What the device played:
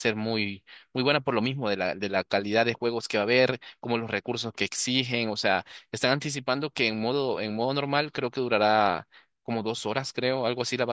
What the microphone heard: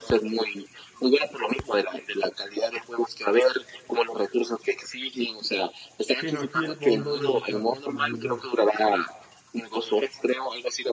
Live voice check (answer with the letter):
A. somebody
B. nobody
A